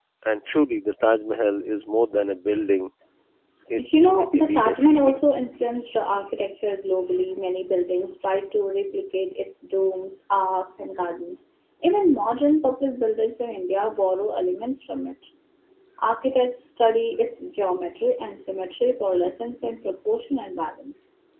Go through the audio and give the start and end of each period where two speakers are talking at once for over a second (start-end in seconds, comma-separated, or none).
3.8-5.2